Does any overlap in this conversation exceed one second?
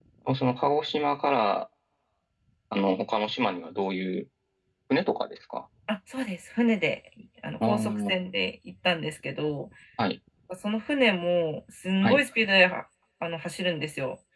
No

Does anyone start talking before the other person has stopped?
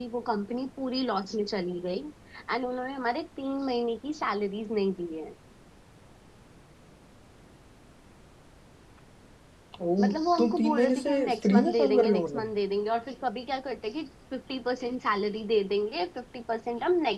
Yes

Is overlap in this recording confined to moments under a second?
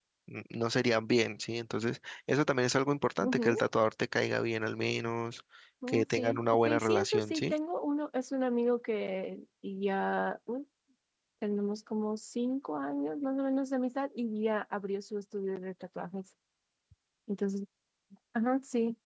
No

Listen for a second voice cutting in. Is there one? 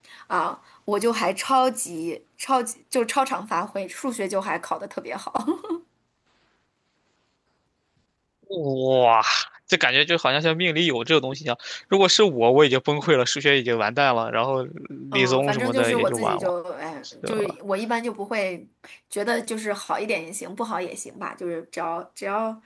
Yes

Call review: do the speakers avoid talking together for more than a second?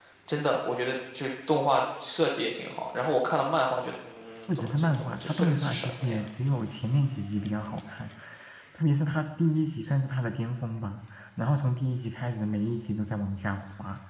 No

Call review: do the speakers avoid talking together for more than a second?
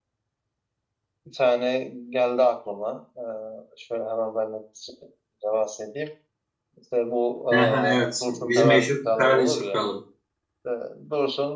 No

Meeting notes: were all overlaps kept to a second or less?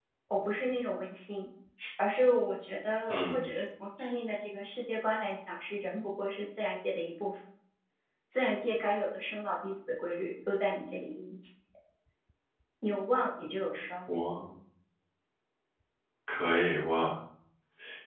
Yes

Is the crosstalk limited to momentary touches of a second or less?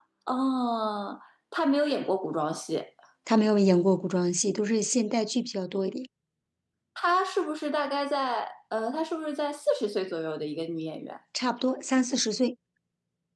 Yes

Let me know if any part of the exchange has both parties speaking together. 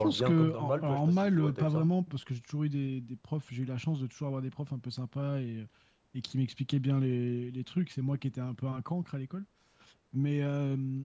Yes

